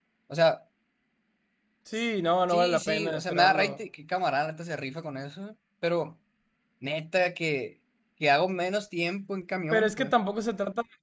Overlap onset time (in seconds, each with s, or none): 2.5 s